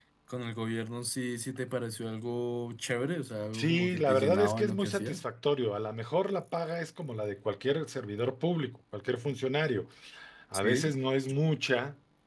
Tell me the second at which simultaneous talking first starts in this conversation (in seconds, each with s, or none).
3.5 s